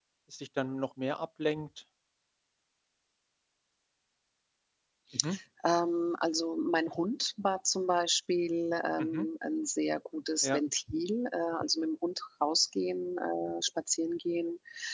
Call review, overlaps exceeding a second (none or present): none